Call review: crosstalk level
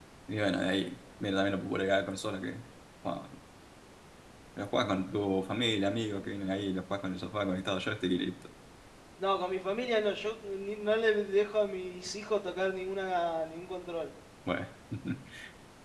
none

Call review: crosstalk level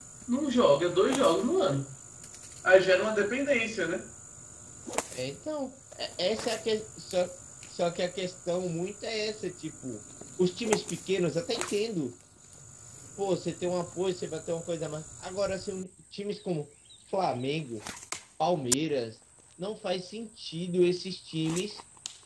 none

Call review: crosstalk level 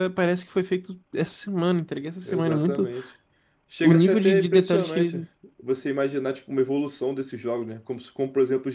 present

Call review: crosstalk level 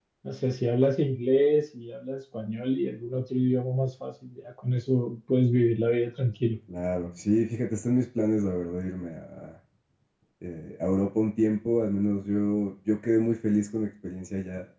none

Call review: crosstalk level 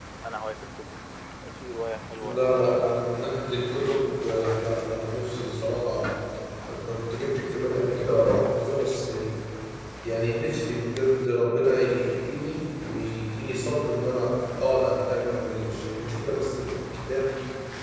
present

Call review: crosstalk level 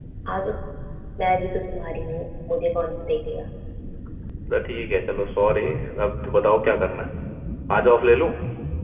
none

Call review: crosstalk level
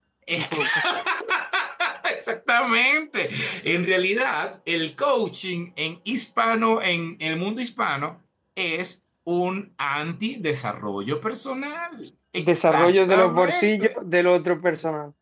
present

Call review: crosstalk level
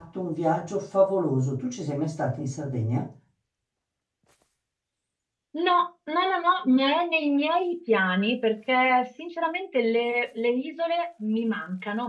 none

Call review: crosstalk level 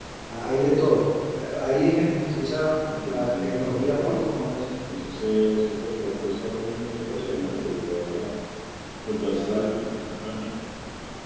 present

